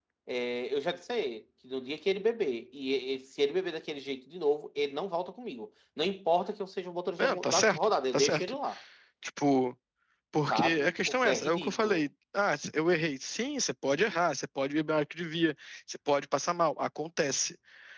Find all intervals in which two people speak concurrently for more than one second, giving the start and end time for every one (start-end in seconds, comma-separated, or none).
7.2-8.6, 10.5-12.1